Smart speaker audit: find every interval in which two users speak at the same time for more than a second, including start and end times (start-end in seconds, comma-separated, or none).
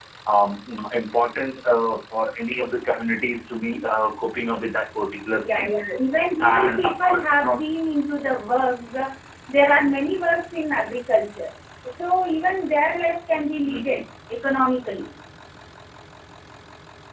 6.4-7.6